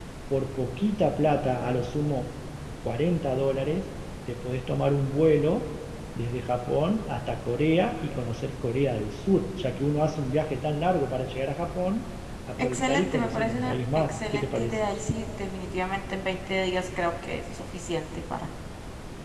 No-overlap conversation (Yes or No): No